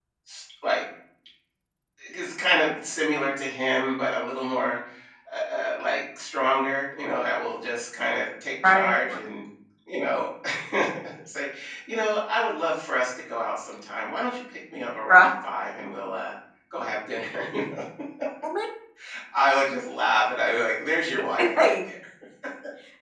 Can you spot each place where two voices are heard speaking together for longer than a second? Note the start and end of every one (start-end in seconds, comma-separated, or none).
none